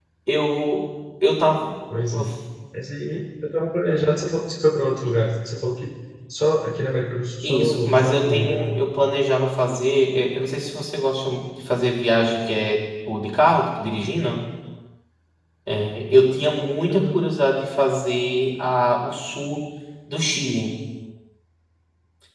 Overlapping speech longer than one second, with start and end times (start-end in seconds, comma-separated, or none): 7.4-8.7